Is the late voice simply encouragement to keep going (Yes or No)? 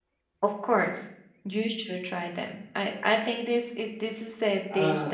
Yes